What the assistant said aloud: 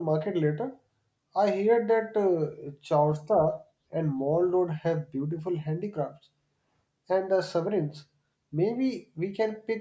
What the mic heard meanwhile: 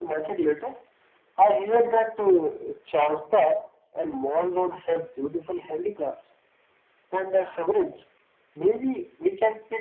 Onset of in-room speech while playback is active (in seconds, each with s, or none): none